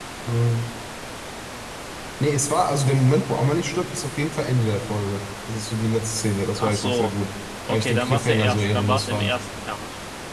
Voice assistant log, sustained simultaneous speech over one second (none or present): present